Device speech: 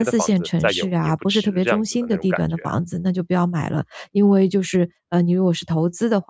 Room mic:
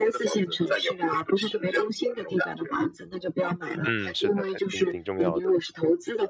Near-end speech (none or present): present